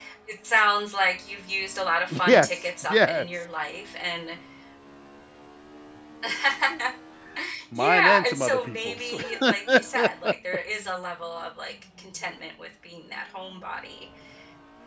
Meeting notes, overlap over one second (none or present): present